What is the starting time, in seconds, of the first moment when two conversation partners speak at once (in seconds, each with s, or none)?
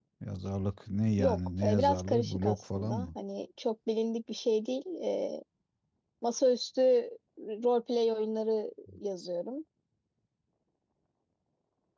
1.2 s